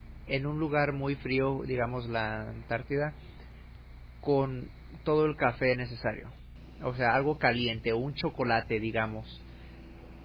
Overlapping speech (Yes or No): No